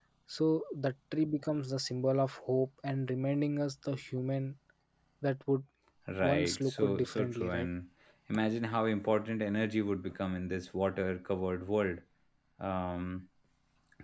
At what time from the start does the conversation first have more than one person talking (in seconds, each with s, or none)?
6.2 s